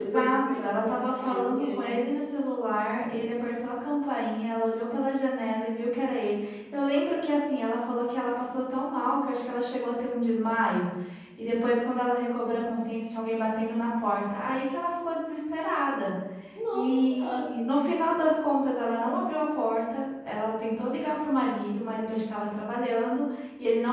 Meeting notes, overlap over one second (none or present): present